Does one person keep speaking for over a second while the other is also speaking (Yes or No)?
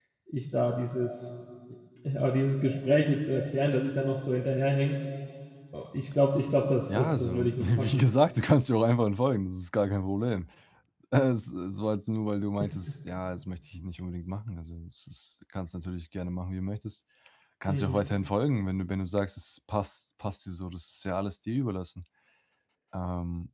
Yes